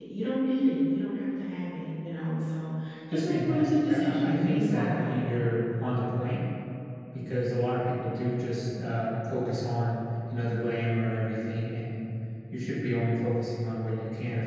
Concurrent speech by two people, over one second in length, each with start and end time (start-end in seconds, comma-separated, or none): 3.1-5.2